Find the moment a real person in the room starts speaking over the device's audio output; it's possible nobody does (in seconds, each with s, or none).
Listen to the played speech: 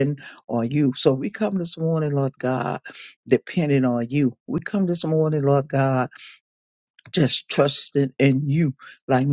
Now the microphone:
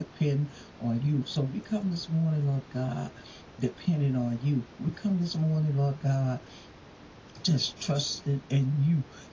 none